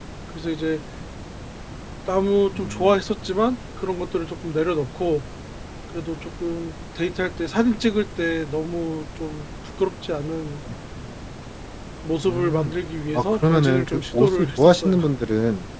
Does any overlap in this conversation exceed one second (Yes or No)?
Yes